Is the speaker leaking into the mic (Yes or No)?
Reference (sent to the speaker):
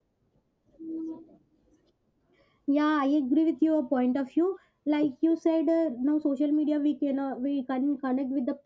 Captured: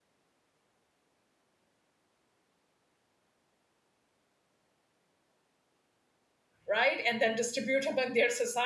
No